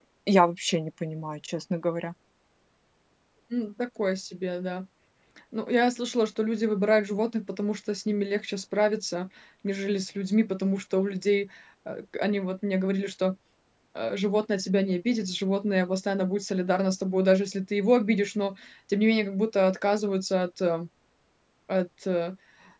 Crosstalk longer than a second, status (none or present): none